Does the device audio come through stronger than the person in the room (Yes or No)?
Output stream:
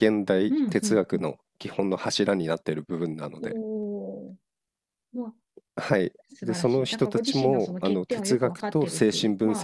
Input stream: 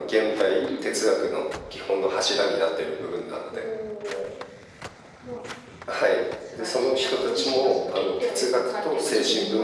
Yes